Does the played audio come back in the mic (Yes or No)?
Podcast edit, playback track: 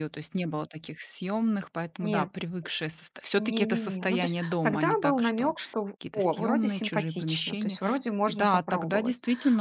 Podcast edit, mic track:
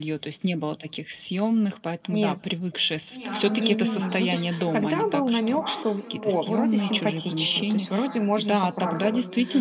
Yes